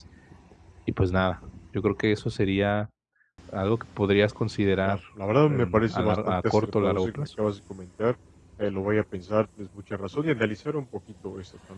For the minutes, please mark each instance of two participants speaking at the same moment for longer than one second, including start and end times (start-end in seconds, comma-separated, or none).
5.5-7.3